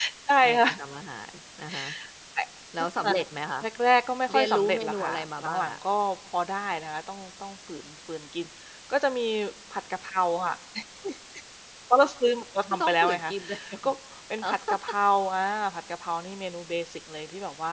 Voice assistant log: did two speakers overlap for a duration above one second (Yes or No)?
Yes